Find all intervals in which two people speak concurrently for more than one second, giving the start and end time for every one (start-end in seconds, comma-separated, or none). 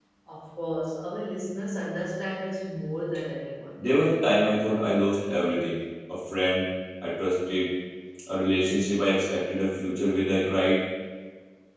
none